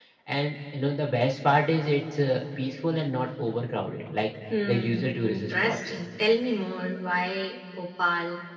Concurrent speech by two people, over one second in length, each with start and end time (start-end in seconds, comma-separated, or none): 4.7-6.0